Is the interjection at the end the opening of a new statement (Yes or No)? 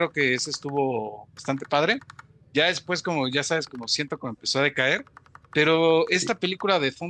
No